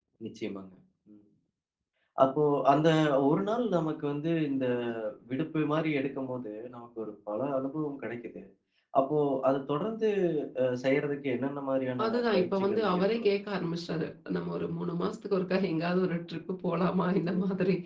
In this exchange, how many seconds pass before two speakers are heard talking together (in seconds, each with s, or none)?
12.0 s